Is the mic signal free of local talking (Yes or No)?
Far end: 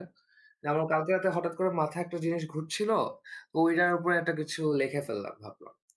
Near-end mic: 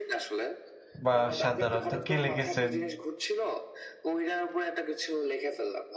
No